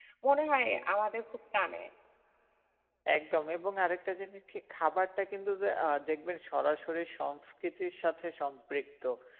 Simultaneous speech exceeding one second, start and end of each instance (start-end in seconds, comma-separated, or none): none